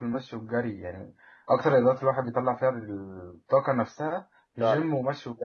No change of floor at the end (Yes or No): Yes